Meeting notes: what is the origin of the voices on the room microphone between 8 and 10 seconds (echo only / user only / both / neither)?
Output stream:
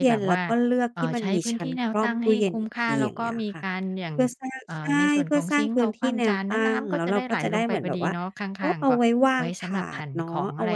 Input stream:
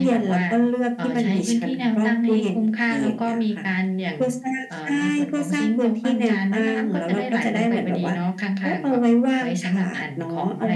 echo only